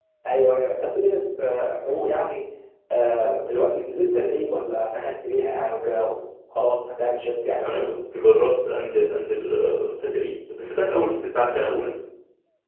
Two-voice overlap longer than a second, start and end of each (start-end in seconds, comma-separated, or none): none